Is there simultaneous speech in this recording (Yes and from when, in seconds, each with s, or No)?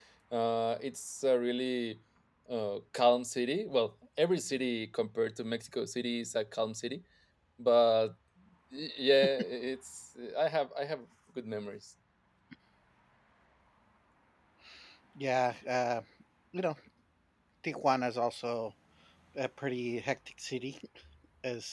No